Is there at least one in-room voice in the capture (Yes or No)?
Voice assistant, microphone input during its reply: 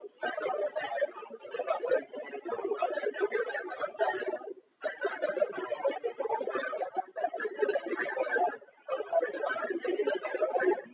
No